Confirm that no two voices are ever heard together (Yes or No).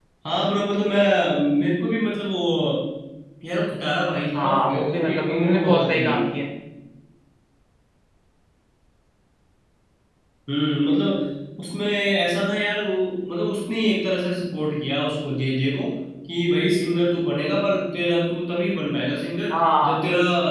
No